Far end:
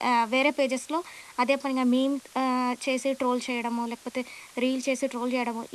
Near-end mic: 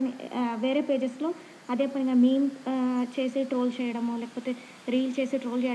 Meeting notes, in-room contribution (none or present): none